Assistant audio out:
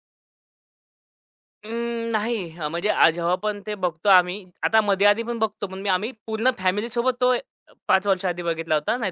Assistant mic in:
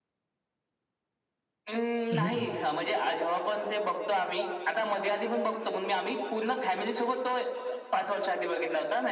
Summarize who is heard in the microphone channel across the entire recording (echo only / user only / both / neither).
both